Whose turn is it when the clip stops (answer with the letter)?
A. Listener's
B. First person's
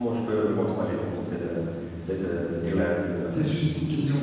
A